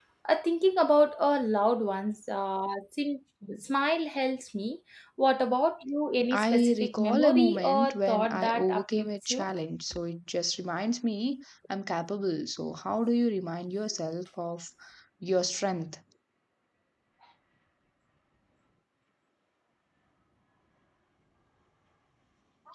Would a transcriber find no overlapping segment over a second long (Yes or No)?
No